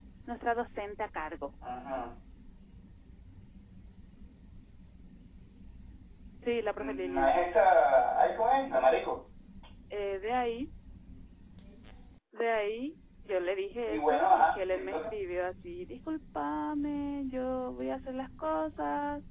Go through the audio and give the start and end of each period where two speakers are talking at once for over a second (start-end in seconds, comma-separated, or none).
13.9-15.1